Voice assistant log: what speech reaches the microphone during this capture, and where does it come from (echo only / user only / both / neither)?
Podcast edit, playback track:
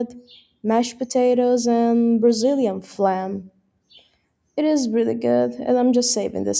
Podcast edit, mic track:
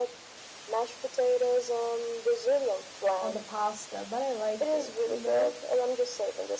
both